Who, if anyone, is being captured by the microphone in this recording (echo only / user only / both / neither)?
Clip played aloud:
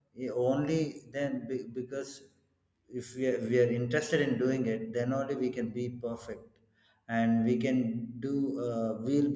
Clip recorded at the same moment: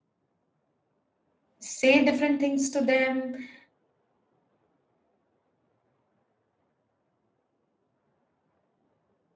user only